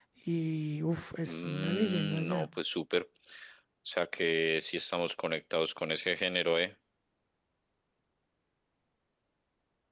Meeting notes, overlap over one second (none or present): present